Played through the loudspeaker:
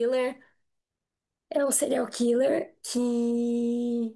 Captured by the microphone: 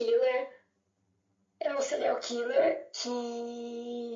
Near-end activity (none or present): none